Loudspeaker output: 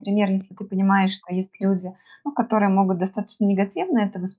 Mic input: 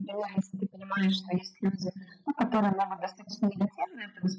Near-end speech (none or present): none